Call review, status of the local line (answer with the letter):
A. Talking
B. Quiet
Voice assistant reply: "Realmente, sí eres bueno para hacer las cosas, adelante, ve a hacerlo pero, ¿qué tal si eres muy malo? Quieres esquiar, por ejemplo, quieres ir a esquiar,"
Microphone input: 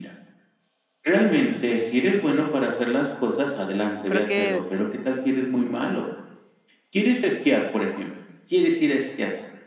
A